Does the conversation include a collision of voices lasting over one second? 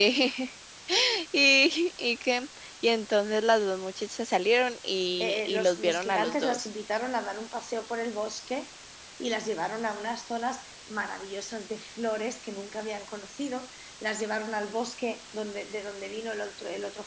Yes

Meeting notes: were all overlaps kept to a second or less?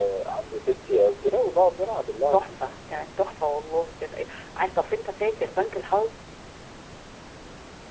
Yes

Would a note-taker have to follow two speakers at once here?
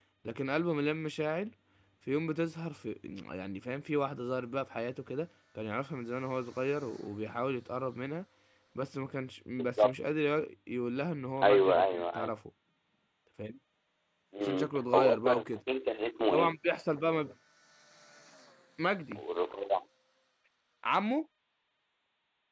Yes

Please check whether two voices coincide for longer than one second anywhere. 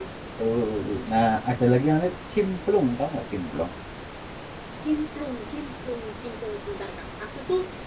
No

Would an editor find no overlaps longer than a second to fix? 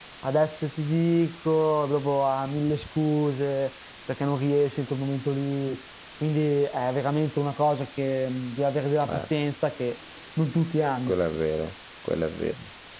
Yes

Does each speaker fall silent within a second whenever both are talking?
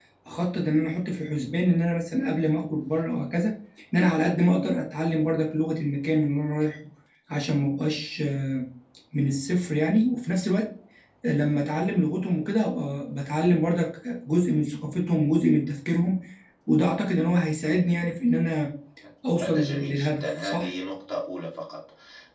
No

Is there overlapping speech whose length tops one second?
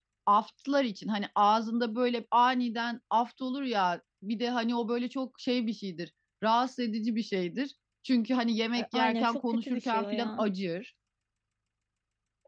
Yes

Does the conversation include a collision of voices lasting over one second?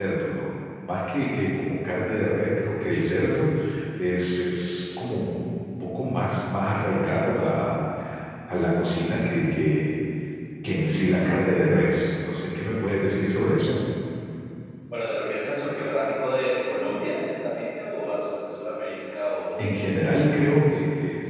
No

